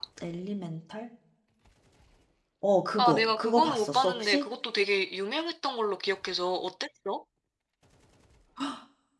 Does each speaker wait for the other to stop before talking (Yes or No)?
No